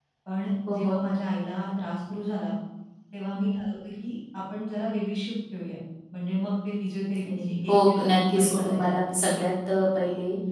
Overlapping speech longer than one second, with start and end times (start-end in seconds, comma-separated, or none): 7.2-8.8